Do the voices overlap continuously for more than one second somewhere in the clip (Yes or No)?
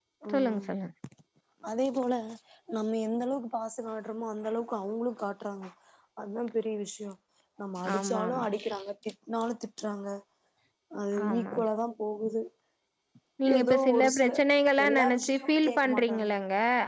Yes